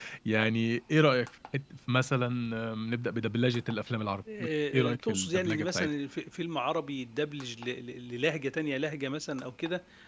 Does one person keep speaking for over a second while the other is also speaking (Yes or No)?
Yes